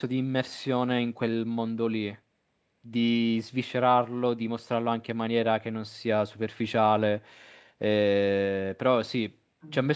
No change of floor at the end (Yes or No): Yes